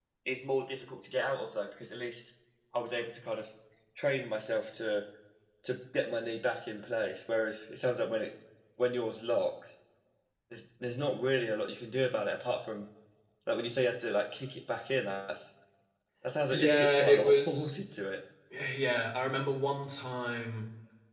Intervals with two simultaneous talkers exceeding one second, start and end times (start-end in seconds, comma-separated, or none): 16.5-17.7